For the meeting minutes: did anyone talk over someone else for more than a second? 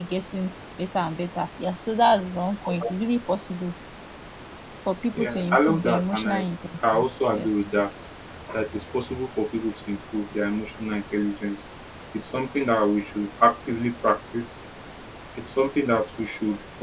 Yes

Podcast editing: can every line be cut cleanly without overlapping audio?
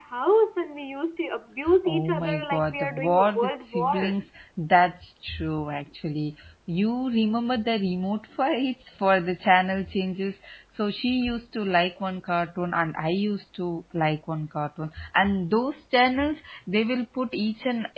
No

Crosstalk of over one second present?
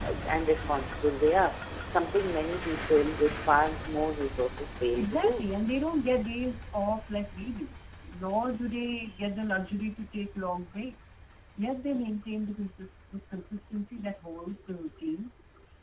No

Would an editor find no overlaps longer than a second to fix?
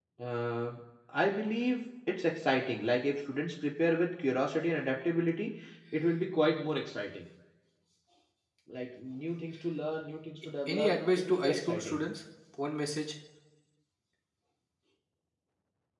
No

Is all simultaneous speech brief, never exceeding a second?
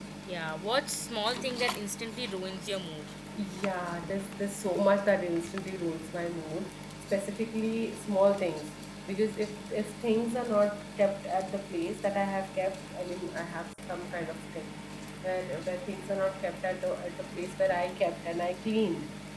Yes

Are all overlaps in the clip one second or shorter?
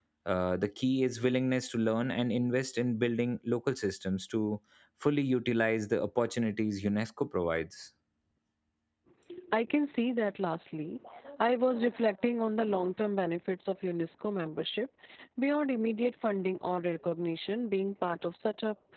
Yes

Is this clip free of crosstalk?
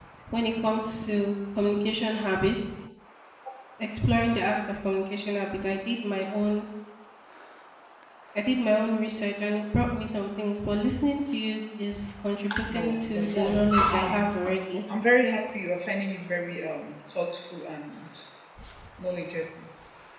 No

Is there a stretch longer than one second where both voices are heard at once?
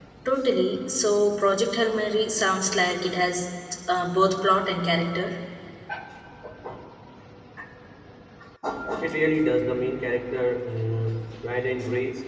No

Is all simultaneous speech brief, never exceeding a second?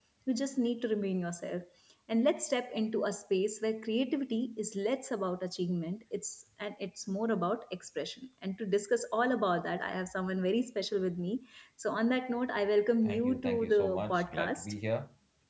No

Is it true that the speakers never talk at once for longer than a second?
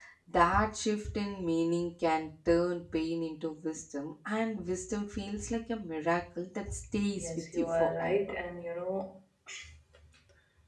No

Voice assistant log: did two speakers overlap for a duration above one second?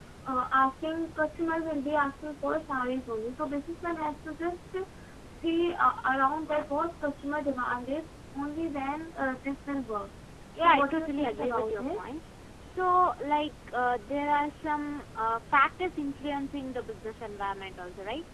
Yes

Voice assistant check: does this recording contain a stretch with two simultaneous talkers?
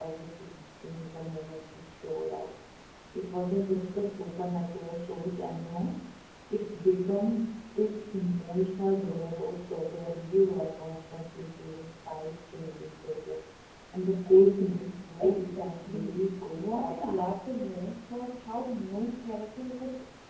Yes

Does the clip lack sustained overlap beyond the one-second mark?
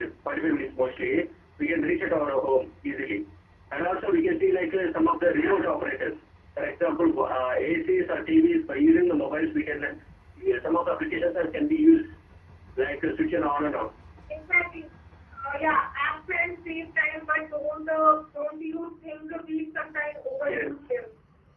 Yes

